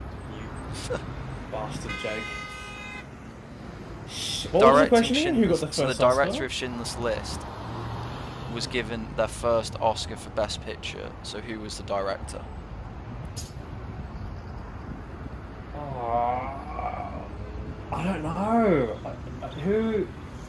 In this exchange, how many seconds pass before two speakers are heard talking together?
4.6 s

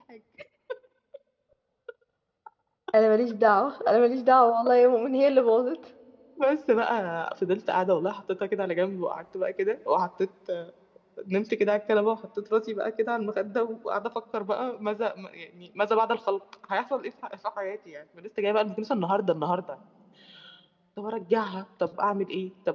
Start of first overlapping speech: none

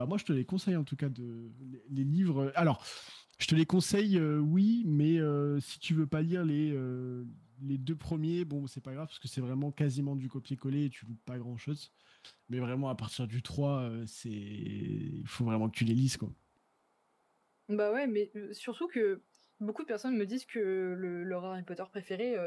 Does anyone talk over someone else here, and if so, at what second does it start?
none

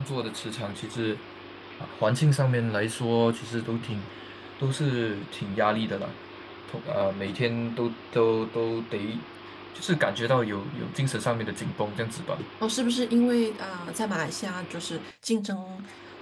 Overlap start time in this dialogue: none

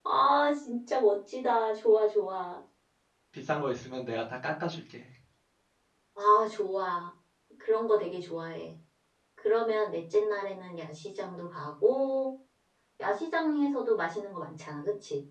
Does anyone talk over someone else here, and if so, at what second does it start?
none

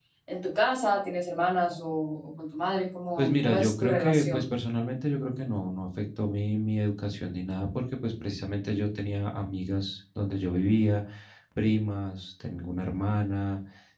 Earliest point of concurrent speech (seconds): 3.2 s

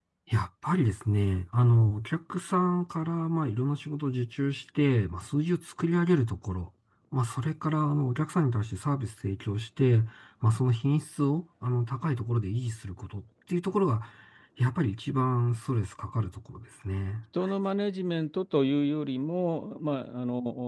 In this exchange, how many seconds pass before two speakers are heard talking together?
none

